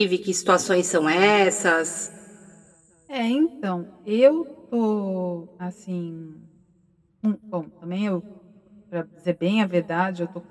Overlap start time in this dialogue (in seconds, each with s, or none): none